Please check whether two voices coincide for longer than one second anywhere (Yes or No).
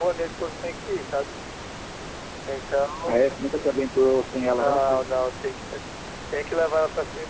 No